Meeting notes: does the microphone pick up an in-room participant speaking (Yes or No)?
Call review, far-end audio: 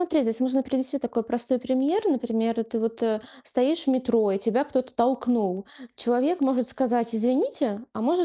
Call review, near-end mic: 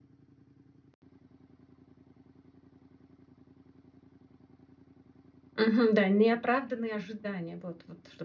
Yes